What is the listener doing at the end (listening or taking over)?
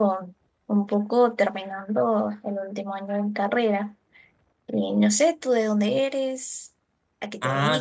taking over